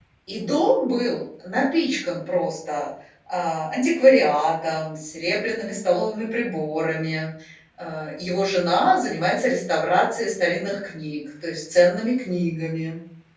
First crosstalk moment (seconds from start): none

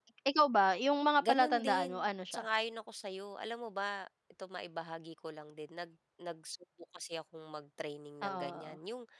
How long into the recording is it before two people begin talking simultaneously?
1.2 s

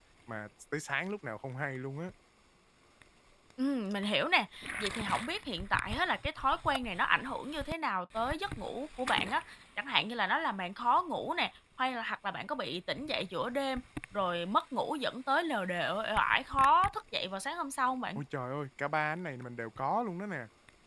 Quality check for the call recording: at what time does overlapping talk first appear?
none

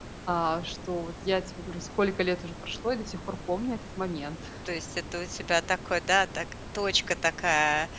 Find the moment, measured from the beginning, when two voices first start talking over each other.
none

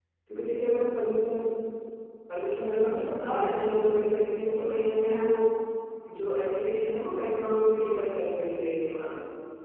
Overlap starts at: 2.9 s

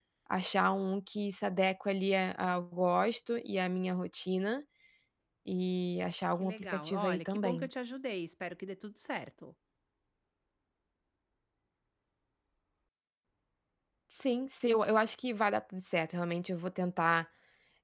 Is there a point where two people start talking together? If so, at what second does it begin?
6.4 s

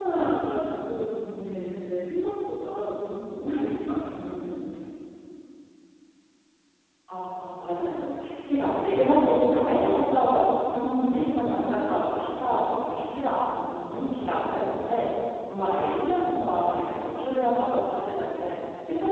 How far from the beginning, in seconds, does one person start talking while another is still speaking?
none

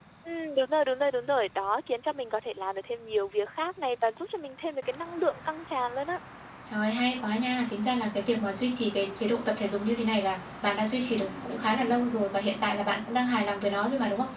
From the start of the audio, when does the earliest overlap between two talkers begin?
none

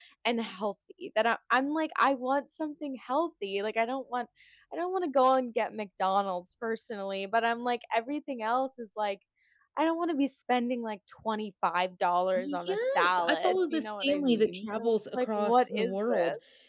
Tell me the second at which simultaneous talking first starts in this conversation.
12.4 s

